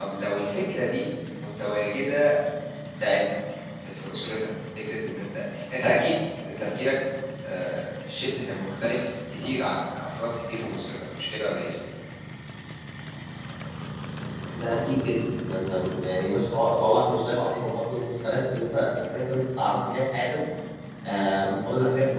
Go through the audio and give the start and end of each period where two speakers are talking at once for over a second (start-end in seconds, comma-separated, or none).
none